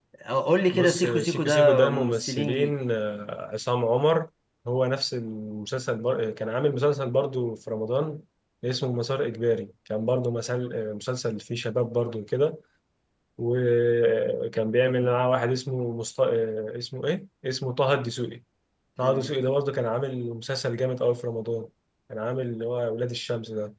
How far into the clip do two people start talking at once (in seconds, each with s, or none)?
0.7 s